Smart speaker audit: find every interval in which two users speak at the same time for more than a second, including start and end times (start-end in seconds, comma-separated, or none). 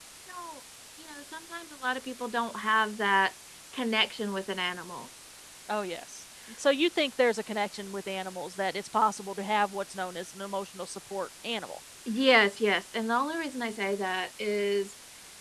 none